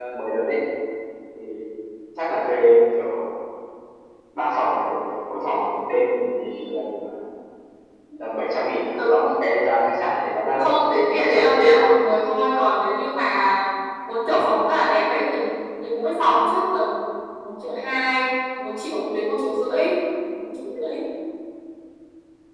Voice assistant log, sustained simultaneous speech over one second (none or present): present